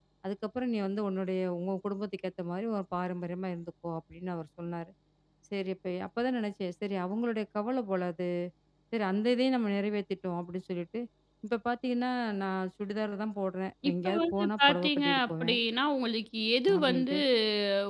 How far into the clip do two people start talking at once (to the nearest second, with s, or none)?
14 s